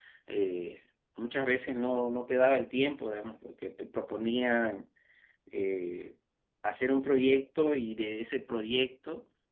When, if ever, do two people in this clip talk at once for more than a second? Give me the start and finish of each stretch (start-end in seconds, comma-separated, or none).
none